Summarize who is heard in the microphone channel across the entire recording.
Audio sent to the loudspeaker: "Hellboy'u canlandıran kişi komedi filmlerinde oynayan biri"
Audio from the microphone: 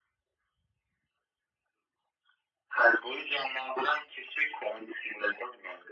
echo only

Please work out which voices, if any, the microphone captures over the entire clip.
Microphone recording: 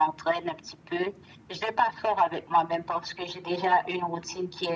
echo only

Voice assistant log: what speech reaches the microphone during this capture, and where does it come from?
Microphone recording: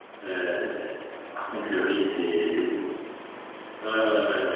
user only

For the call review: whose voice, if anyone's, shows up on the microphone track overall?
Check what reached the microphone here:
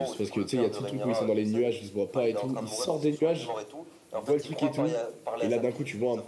both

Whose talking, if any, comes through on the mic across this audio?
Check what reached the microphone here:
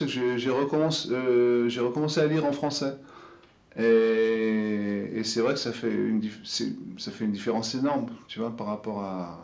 echo only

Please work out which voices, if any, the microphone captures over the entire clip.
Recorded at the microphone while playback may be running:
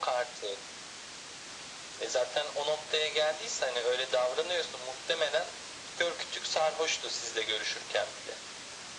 echo only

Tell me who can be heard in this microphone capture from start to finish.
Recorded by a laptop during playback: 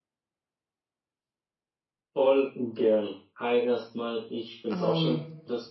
both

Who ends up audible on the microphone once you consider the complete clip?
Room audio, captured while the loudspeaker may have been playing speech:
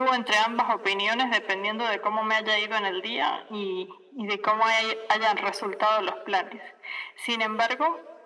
echo only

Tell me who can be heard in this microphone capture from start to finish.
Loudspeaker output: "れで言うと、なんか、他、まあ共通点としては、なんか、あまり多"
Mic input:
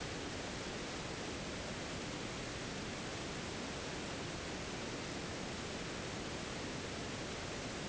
neither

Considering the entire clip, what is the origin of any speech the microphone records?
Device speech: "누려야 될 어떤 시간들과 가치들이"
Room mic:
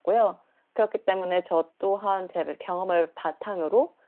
user only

